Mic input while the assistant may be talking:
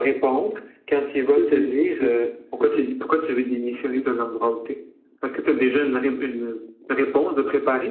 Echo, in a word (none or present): present